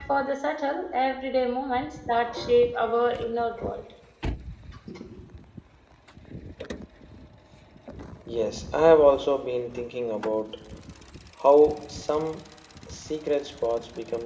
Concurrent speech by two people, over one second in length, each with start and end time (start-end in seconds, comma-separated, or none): none